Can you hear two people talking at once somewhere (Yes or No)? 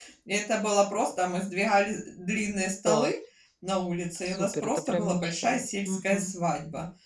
Yes